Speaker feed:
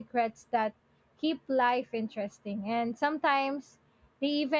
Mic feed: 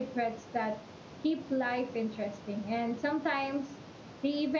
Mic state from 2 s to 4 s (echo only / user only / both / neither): echo only